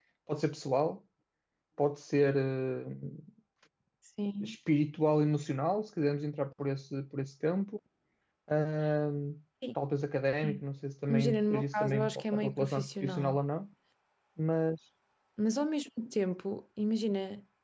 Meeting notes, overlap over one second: present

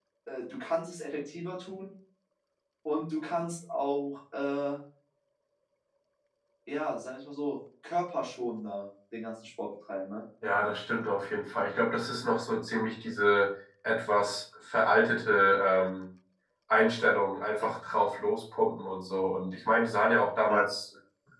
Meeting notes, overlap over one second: none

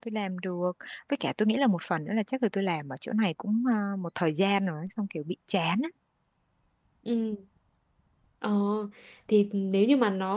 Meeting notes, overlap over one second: none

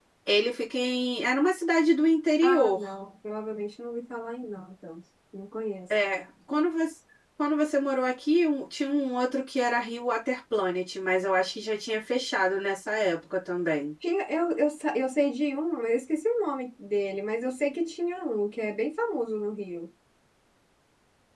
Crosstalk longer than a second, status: none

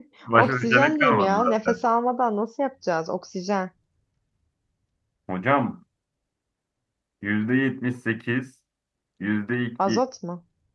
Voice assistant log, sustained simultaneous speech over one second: present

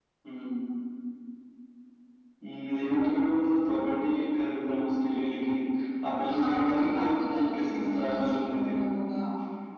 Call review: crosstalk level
present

